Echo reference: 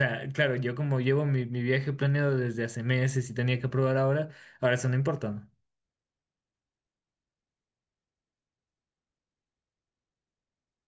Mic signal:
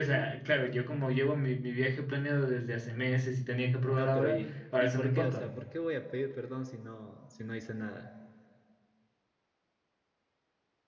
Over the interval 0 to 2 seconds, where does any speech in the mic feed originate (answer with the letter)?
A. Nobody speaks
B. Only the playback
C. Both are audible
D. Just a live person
B